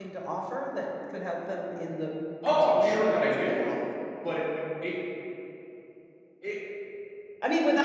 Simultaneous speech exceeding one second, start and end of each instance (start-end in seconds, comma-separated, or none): 2.5-3.7